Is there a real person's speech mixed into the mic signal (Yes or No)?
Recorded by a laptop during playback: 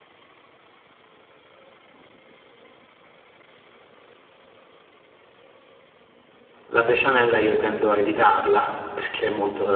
Yes